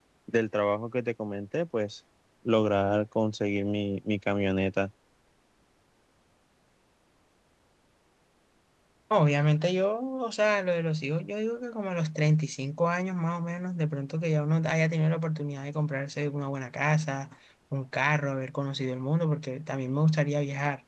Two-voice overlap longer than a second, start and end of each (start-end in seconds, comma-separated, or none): none